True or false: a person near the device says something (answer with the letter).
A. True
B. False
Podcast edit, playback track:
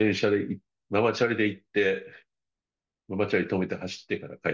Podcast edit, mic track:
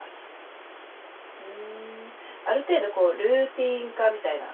A